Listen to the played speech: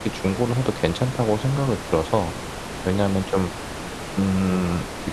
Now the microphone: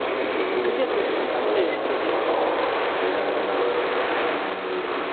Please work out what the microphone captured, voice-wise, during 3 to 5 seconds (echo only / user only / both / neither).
echo only